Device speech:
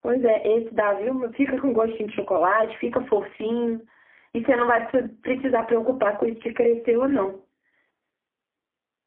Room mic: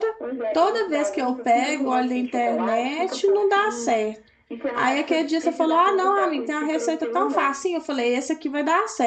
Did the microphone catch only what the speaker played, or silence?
No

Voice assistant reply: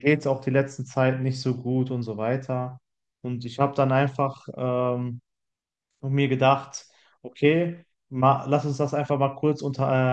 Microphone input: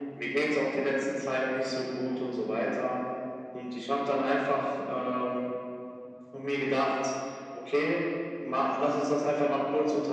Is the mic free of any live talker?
Yes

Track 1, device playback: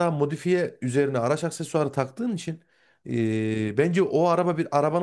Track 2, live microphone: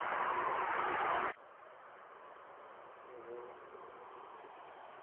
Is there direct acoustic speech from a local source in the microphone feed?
No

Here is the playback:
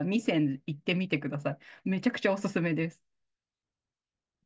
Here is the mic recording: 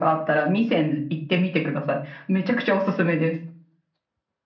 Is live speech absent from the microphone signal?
Yes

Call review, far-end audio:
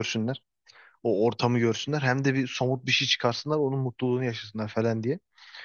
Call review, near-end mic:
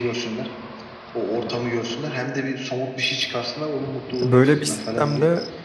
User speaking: Yes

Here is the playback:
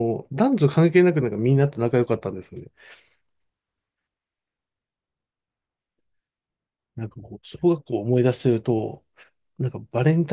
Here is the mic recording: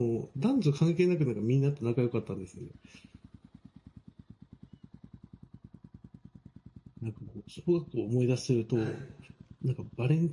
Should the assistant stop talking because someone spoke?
Yes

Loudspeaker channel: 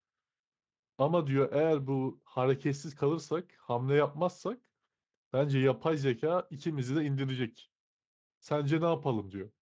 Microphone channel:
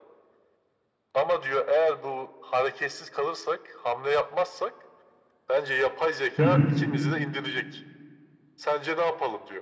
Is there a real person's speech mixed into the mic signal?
Yes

